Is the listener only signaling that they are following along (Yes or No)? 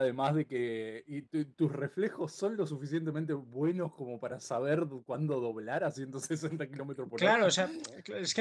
No